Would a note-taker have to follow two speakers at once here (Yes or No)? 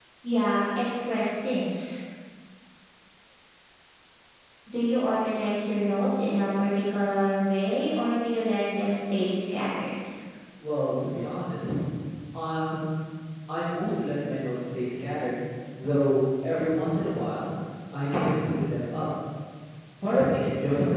No